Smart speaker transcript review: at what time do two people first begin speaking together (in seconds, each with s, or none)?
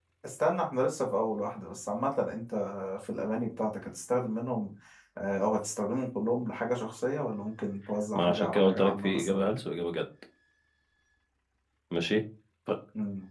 8.2 s